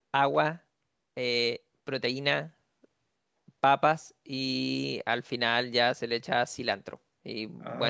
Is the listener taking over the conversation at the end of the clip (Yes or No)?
No